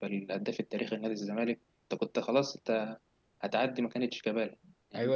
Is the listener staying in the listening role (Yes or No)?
No